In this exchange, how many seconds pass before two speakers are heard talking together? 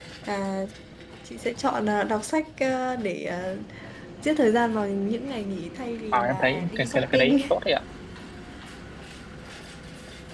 6.1 s

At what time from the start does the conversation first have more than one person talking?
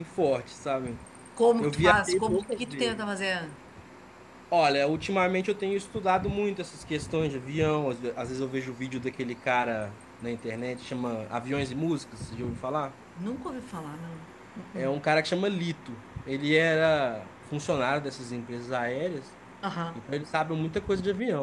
1.6 s

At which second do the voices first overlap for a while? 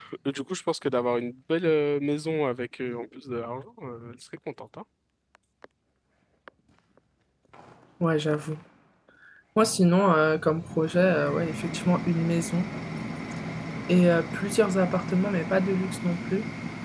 none

